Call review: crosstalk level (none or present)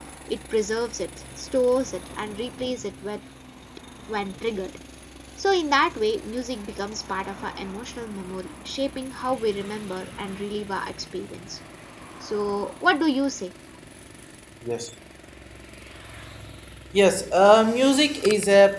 none